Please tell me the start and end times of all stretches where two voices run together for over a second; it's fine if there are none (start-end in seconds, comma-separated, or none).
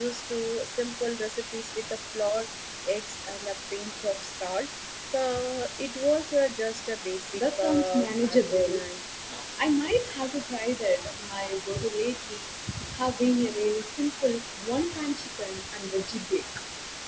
7.3-8.8